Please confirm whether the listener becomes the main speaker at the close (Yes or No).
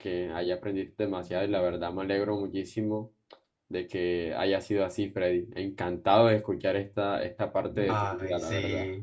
Yes